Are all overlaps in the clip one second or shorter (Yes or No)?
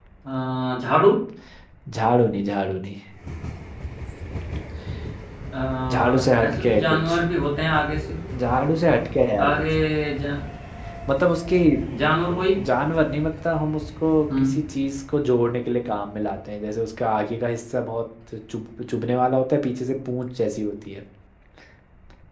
No